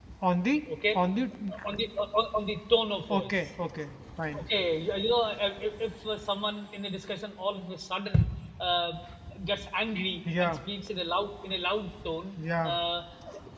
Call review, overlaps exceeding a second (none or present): none